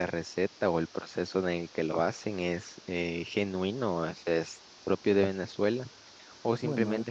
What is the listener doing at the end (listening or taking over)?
listening